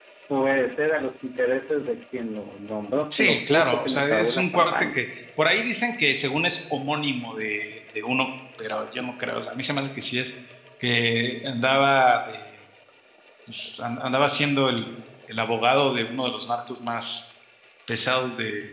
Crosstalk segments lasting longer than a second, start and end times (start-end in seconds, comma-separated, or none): 3.1-5.0